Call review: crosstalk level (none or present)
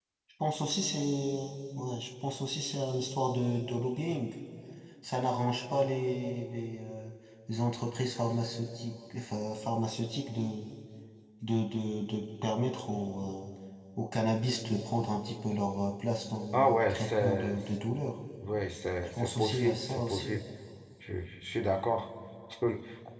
present